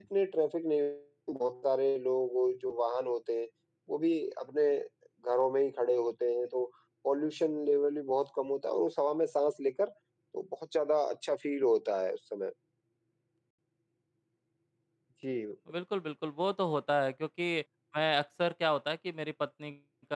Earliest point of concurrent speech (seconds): none

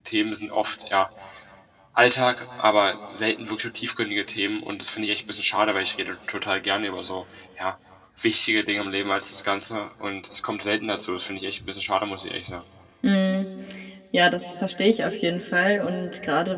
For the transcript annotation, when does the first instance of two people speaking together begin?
none

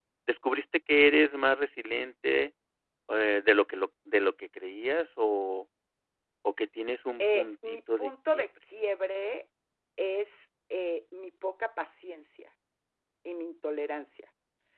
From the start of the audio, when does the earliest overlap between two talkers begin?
7 s

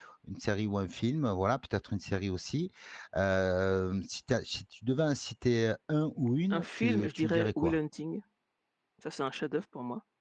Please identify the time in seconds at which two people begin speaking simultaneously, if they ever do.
7 s

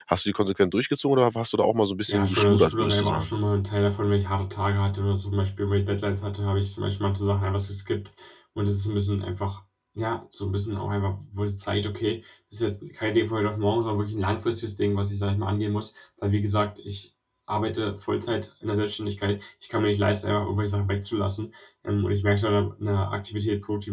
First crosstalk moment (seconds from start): 2 s

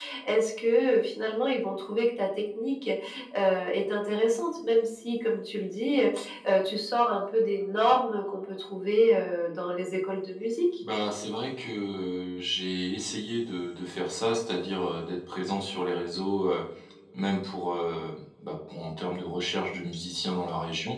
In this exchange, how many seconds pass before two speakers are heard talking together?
none

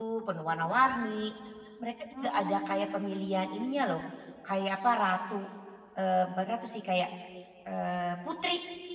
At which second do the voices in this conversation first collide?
2 s

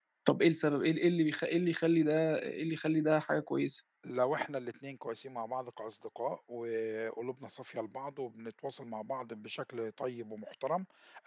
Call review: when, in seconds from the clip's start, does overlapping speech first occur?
none

